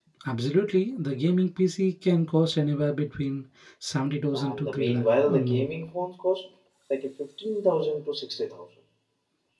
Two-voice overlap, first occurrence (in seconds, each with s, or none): 4.3 s